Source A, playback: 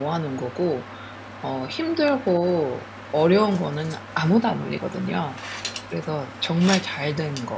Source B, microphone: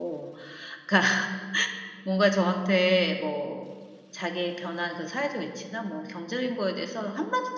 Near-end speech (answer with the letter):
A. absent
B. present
B